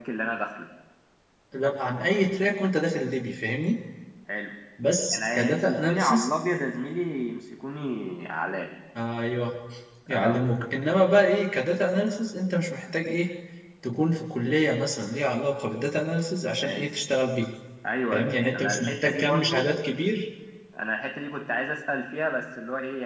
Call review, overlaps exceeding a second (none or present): present